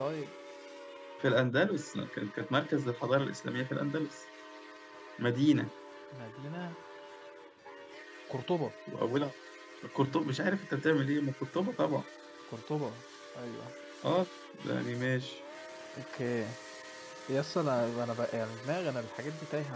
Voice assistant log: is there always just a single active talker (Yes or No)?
Yes